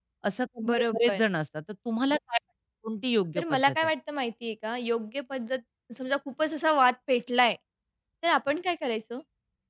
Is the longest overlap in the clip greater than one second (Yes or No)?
No